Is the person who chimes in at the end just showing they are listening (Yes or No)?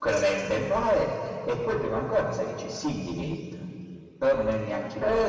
No